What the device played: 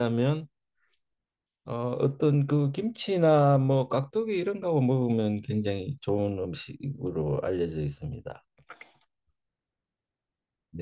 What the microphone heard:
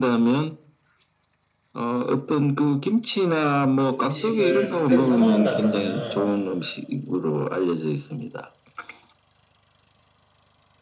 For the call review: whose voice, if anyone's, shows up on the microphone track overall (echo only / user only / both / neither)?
both